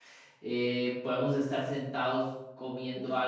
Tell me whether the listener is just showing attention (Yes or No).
Yes